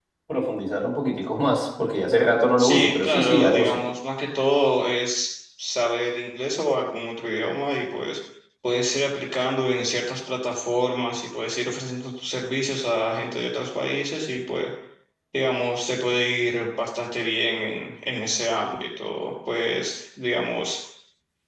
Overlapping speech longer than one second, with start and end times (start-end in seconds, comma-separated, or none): 2.6-3.8